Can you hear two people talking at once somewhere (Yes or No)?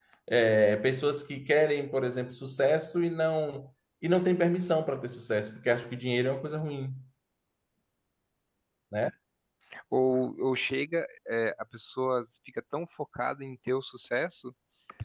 No